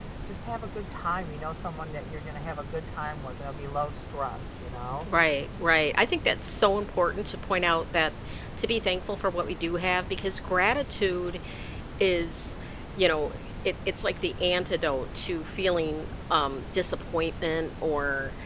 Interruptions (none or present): none